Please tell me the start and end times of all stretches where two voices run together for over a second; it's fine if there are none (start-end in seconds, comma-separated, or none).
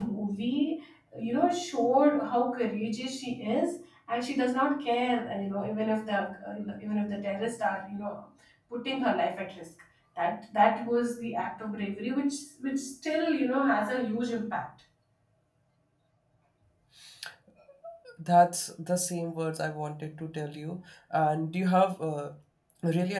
none